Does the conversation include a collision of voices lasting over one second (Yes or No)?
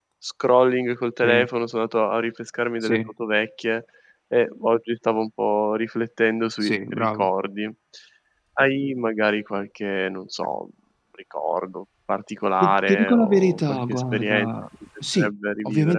Yes